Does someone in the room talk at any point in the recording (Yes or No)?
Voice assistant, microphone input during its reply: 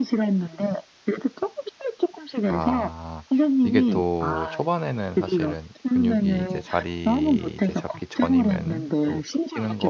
Yes